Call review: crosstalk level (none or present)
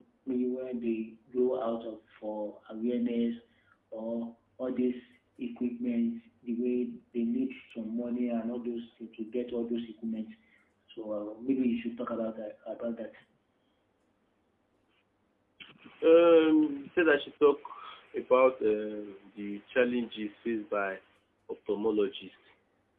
none